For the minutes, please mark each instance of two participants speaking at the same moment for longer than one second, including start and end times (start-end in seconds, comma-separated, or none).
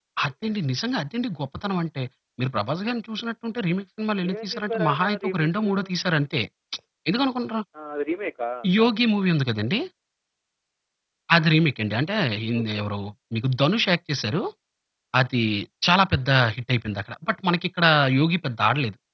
4.3-5.7